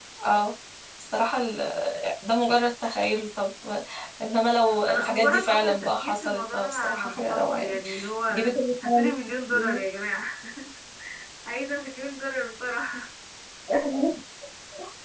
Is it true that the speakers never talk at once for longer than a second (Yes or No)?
No